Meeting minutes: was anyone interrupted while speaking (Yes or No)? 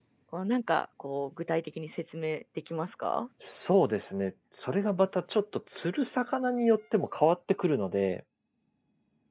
No